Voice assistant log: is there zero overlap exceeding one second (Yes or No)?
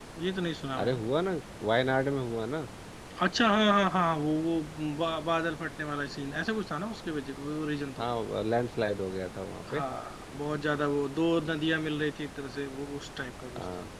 Yes